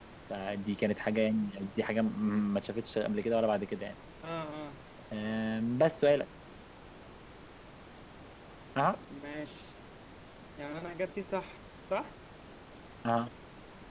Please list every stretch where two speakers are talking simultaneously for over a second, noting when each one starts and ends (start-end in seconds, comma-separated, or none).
none